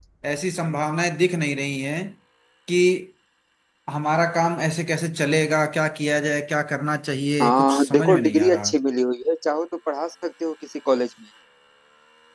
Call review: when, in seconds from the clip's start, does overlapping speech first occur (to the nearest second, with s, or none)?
7 s